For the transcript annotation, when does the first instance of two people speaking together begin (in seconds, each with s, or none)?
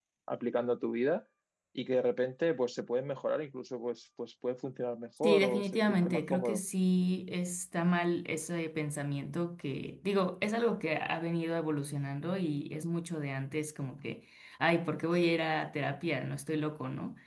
5.2 s